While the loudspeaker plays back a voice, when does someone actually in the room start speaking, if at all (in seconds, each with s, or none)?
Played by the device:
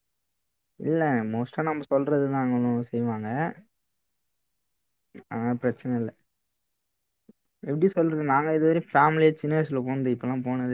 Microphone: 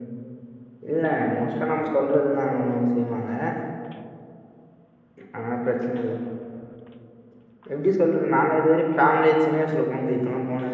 none